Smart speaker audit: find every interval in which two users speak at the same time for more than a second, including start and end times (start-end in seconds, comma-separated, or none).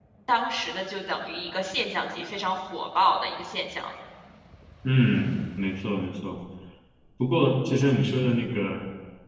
none